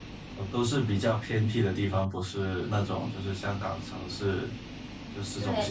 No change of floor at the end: No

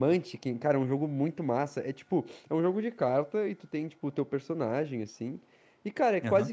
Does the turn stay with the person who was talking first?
Yes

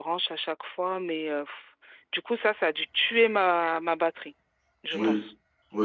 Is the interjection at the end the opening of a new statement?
Yes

